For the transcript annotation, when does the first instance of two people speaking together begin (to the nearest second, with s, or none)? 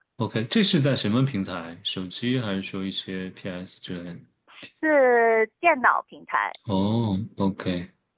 none